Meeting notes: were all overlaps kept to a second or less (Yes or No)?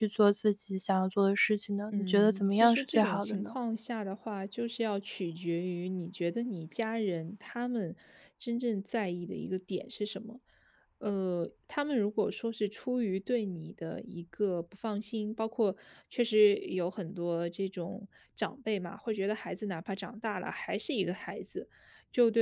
No